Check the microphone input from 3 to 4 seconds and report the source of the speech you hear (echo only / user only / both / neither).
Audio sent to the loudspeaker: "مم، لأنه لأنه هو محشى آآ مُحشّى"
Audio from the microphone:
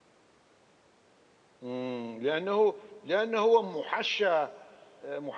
echo only